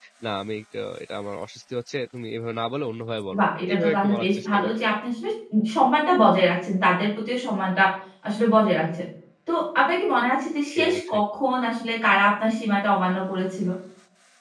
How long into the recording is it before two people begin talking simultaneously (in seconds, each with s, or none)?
3.4 s